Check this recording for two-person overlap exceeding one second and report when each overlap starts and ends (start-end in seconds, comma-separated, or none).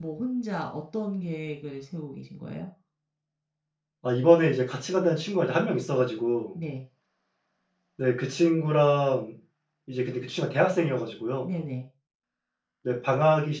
none